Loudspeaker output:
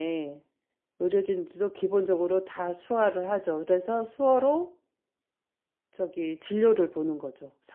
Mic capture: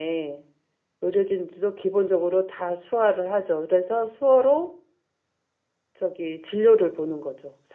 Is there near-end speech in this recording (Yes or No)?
No